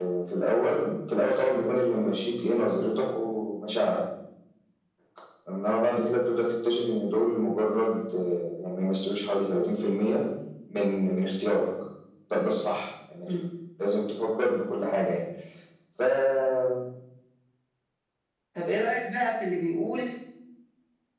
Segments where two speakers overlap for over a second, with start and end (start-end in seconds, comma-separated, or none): none